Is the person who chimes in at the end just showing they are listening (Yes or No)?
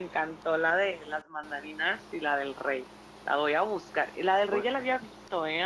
Yes